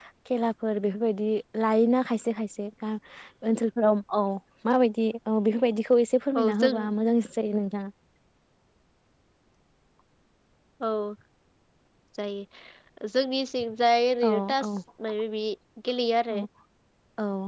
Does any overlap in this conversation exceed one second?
No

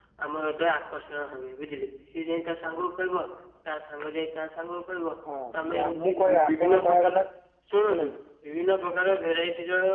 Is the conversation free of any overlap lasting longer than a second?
No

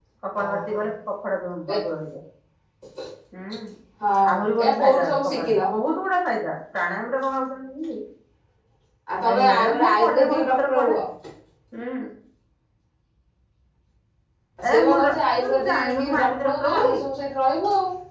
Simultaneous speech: Yes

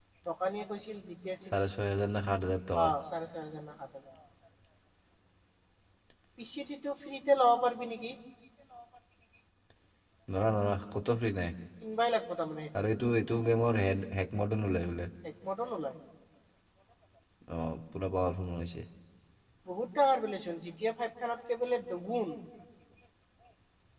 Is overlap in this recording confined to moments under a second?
Yes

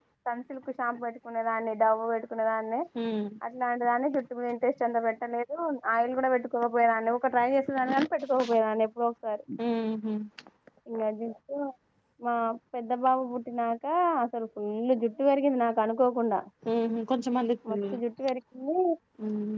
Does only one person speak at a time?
Yes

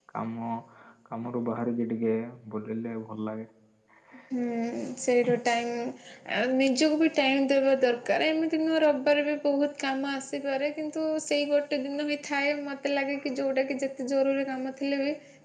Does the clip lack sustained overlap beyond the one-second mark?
Yes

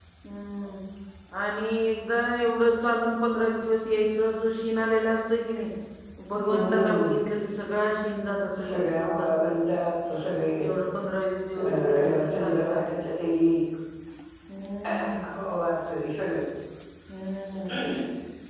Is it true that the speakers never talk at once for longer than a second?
No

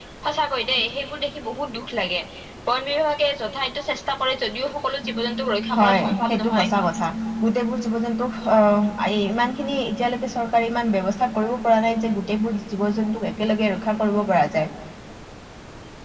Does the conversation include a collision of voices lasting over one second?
Yes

